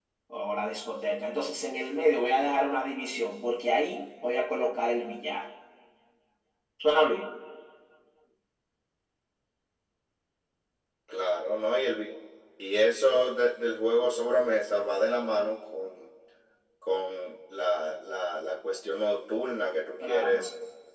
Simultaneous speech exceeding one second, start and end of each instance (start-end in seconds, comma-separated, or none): none